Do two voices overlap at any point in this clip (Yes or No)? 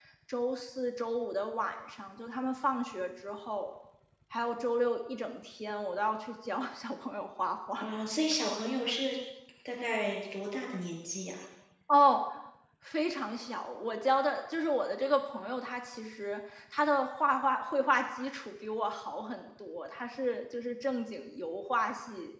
No